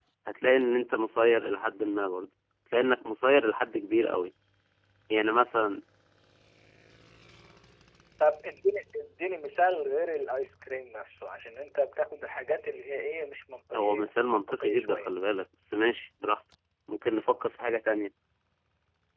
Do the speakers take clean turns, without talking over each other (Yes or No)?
No